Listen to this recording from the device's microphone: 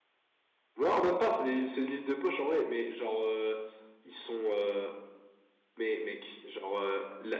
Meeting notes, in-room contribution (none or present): none